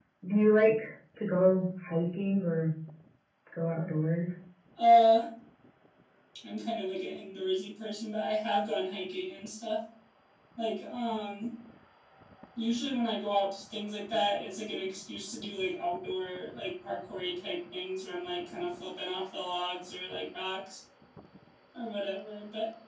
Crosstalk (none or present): none